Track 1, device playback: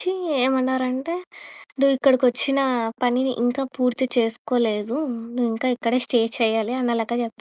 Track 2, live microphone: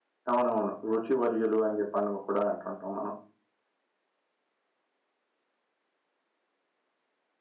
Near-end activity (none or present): present